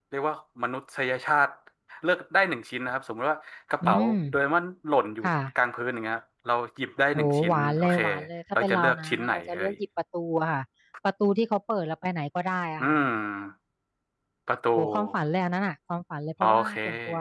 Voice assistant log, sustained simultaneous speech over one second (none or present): present